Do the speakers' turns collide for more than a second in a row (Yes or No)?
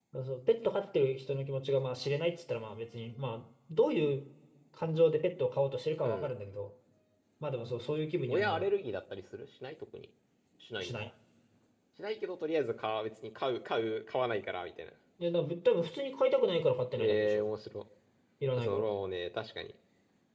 No